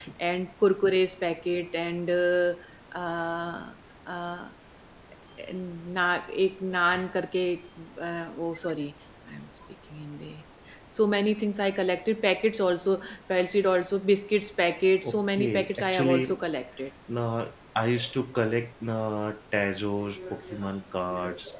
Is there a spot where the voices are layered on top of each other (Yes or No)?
Yes